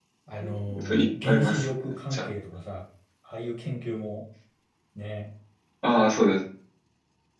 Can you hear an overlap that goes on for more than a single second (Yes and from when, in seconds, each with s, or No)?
Yes, from 0.8 s